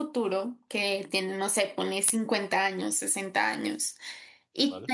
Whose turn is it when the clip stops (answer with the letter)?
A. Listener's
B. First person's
B